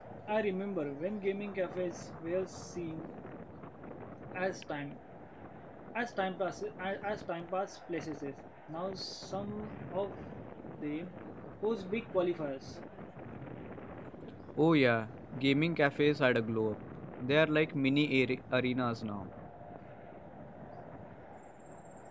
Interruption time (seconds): none

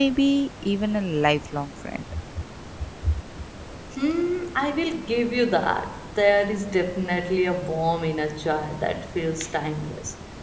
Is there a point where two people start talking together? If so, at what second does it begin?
none

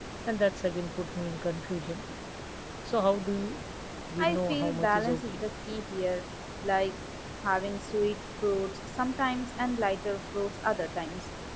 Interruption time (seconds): 4.2 s

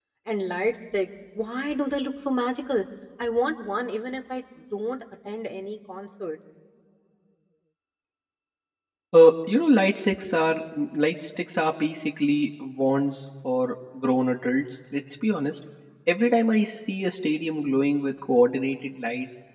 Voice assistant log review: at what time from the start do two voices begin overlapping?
none

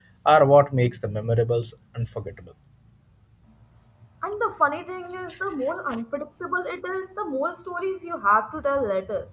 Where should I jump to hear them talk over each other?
none

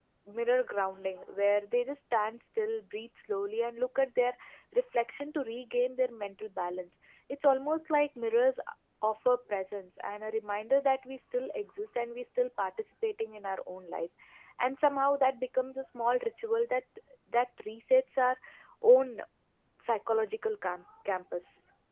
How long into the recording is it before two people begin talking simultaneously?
none

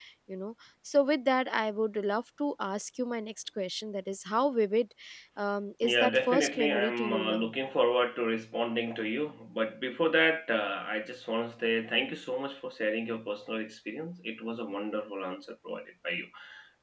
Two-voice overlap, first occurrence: 5.8 s

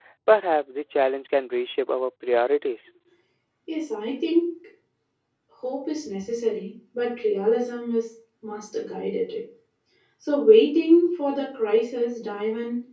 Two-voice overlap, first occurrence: none

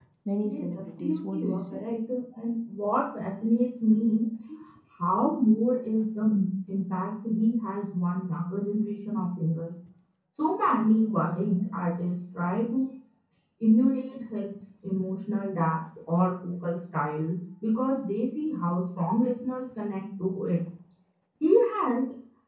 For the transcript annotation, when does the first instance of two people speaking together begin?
0.5 s

